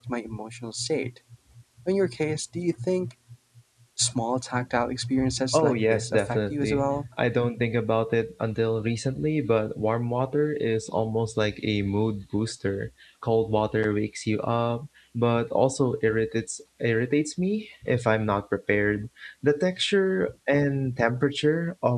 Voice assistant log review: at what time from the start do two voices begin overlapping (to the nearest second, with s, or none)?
6 s